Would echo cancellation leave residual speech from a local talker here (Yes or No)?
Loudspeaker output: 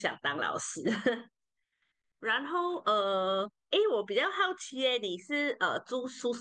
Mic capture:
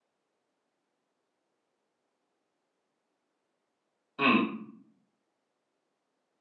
Yes